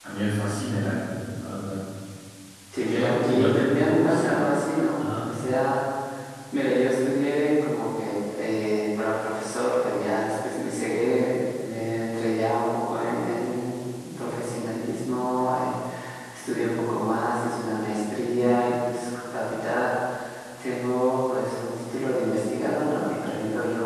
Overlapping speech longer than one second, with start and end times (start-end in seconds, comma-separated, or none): 2.9-4.4